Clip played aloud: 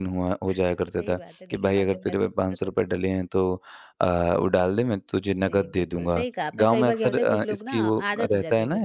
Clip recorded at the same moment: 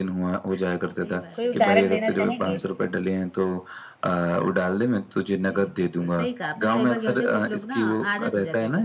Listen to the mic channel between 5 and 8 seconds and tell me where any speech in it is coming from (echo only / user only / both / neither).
echo only